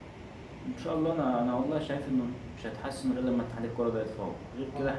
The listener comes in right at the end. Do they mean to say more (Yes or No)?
Yes